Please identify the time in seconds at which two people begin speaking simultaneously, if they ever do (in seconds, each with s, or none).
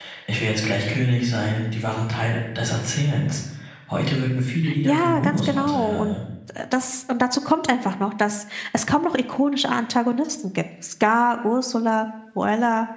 4.6 s